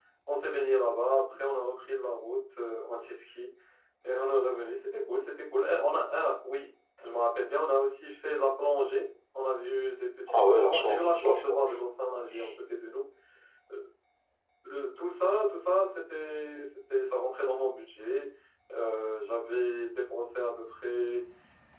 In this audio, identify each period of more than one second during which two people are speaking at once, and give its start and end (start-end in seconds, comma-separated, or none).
10.3-11.8